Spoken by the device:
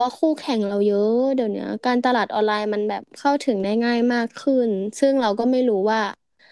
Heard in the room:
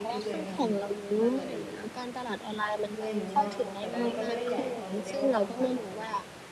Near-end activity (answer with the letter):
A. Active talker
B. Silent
A